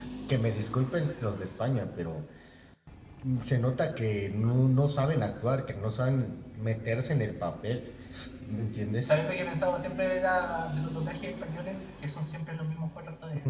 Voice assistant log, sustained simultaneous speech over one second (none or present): none